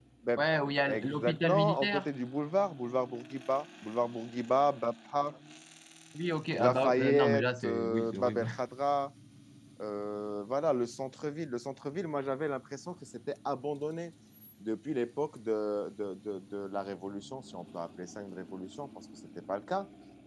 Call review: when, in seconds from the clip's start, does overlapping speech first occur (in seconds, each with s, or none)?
0.8 s